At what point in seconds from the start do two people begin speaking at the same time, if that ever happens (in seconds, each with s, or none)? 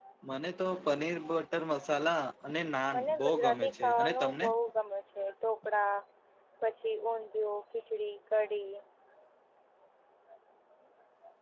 2.9 s